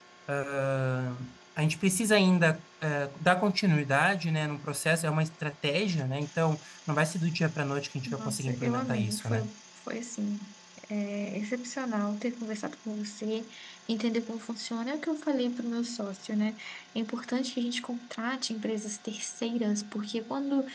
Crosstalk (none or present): present